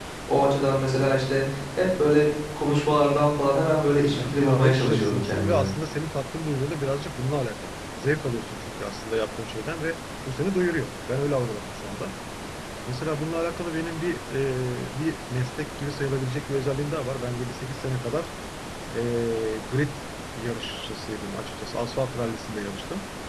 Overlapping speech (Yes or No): Yes